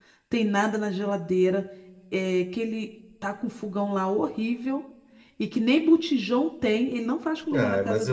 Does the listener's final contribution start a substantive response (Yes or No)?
Yes